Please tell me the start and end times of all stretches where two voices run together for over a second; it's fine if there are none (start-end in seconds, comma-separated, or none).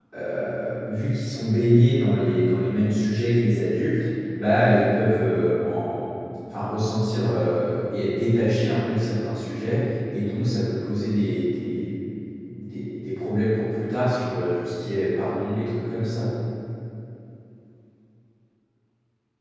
none